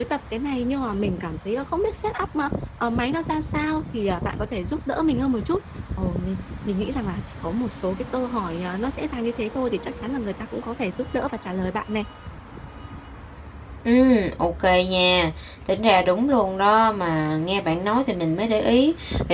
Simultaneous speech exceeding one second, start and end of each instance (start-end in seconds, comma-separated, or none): none